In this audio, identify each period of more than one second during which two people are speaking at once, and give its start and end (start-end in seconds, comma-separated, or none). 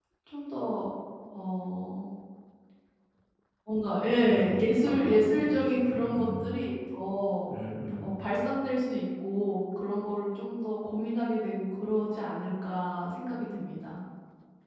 4.3-6.4